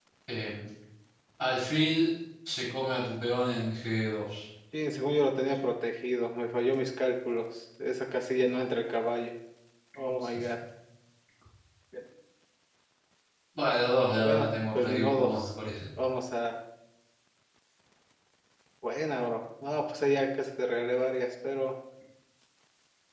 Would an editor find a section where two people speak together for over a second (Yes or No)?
Yes